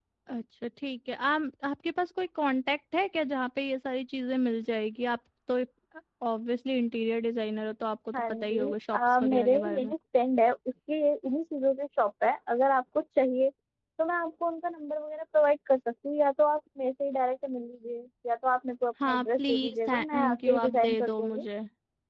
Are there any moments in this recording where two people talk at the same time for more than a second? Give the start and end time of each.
8.2-9.9, 19.0-21.4

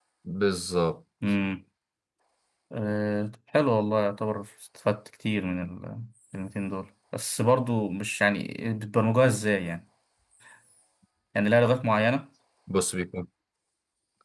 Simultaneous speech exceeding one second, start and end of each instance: none

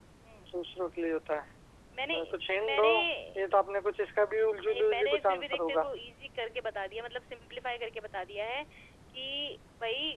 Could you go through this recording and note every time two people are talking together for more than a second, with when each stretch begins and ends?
4.6-5.9

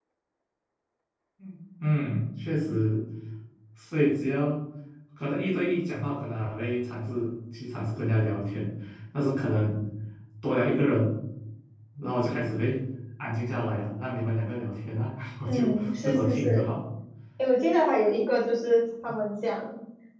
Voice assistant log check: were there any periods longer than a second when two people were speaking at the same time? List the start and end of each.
15.5-16.7

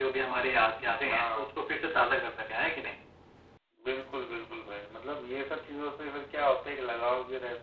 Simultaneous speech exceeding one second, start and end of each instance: none

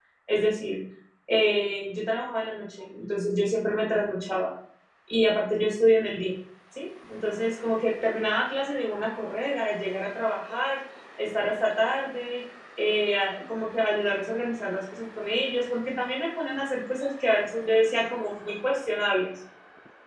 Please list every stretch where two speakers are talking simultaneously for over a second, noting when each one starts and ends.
none

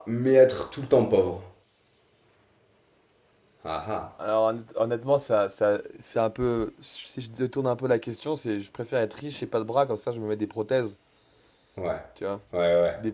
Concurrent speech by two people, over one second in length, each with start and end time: none

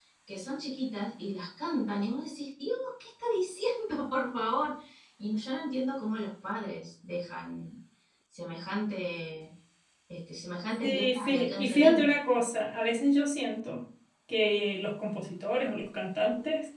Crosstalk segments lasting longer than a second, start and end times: 10.8-12.1

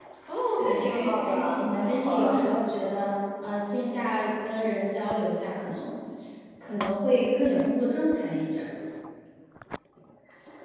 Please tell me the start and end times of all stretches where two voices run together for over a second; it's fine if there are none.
0.6-2.4

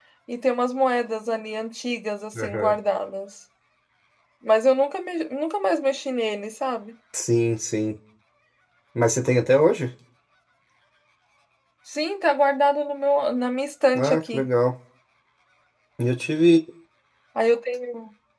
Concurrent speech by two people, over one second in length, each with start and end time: none

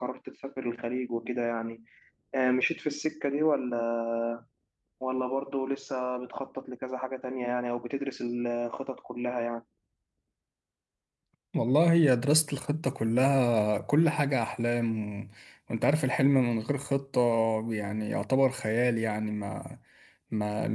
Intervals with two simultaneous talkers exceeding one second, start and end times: none

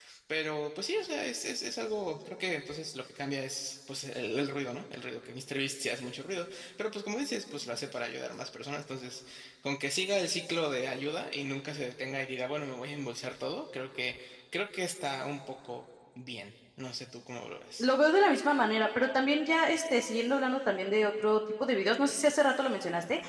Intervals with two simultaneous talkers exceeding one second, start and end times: none

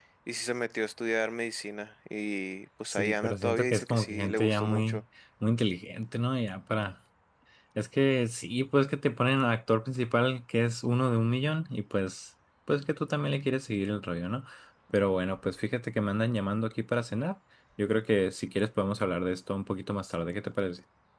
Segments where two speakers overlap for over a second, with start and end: 2.9-5.0

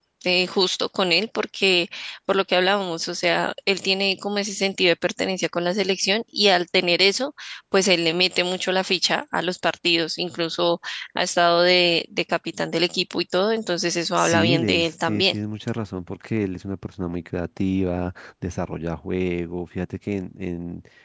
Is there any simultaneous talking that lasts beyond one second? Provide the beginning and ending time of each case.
14.2-15.4

